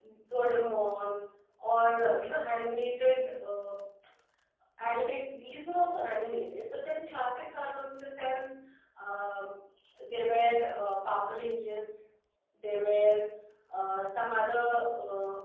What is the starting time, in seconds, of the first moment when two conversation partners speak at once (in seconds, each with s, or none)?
none